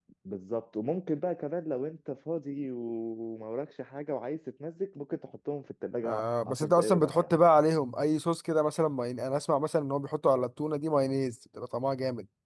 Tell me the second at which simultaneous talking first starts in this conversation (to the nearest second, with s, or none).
6 s